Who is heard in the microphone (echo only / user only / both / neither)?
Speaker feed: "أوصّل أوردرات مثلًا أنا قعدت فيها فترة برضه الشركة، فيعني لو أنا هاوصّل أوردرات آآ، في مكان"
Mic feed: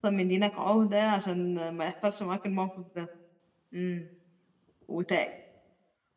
user only